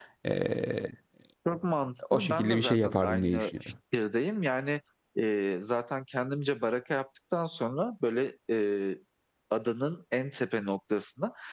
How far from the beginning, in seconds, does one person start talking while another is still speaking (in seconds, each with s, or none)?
2.1 s